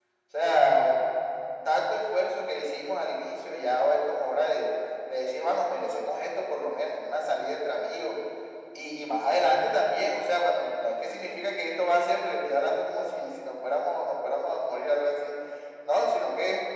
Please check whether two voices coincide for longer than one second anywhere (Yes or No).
No